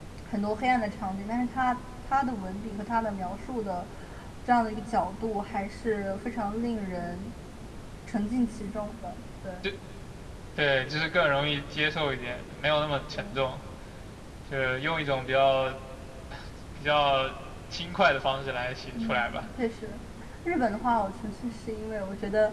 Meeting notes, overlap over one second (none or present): none